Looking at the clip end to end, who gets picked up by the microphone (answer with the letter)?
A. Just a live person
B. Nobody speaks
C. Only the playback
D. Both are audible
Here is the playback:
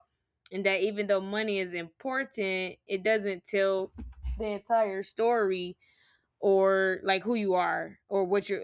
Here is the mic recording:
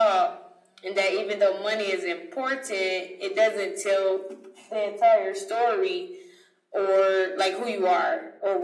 C